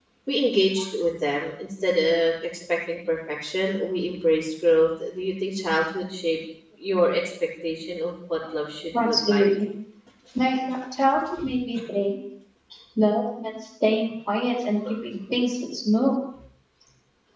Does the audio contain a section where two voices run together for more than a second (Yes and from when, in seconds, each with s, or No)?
No